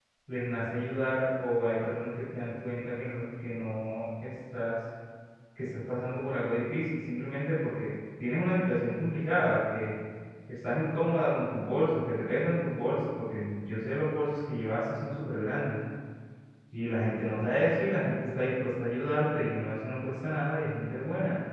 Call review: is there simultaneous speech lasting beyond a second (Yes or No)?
No